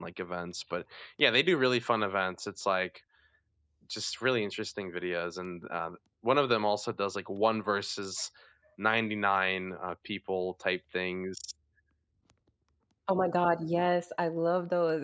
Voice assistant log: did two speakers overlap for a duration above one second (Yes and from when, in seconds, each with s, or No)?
No